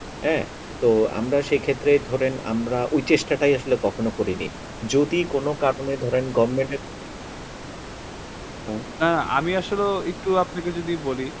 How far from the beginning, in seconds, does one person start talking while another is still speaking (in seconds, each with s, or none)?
none